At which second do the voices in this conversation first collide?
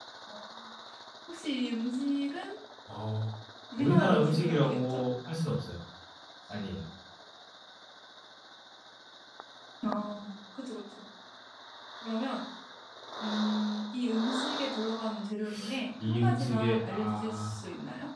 4 s

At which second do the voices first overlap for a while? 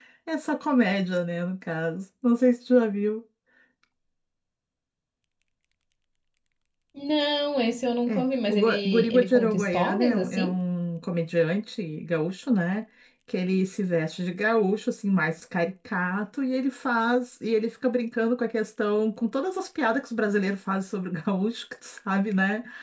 8 s

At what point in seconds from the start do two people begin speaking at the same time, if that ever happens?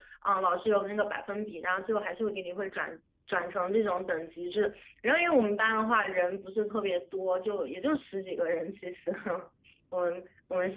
none

